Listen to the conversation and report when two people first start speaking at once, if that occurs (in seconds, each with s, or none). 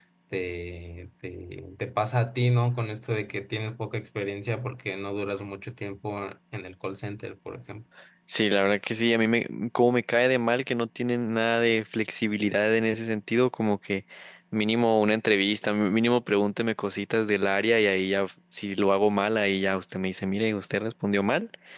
none